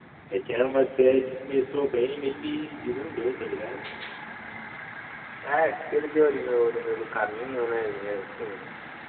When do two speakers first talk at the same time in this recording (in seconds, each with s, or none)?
none